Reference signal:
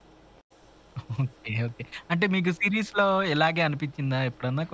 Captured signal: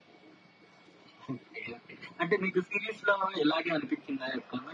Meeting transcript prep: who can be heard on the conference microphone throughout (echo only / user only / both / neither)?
echo only